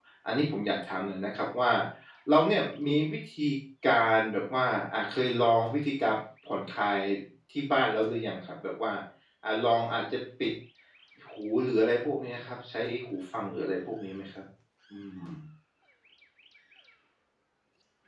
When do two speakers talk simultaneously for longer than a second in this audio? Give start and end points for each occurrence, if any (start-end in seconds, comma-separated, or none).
none